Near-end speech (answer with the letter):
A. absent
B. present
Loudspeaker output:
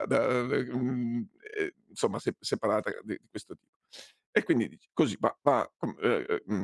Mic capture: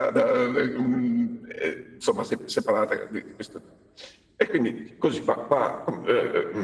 A